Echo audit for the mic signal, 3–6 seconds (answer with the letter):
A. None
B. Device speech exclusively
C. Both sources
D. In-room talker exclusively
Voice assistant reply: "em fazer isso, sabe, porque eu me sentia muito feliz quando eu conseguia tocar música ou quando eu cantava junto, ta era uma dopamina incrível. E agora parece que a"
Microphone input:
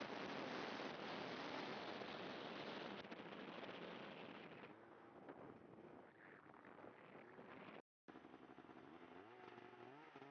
A